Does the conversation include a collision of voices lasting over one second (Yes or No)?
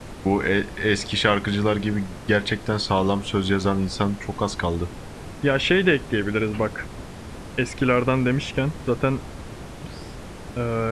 No